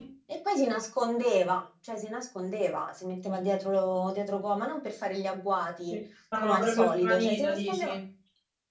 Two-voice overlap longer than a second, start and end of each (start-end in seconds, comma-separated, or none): 6.4-7.9